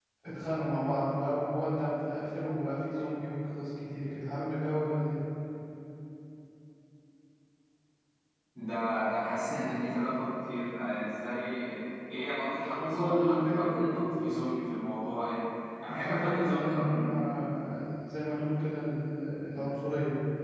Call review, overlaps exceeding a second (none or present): present